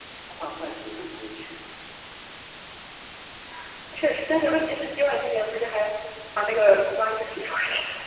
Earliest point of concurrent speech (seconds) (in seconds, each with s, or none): none